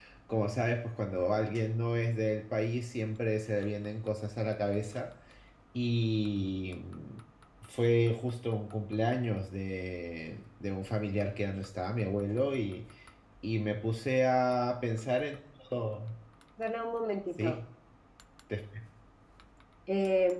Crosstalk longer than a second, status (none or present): none